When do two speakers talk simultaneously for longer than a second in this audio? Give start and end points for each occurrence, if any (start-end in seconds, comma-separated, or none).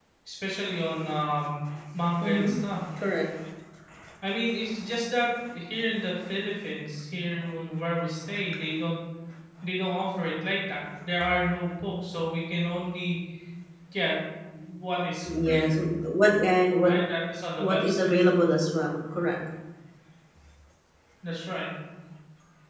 none